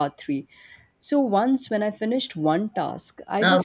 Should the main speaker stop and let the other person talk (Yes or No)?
No